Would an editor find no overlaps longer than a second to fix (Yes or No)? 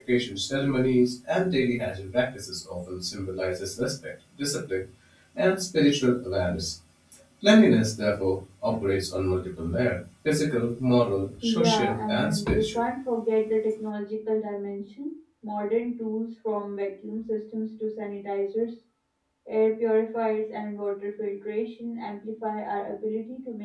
No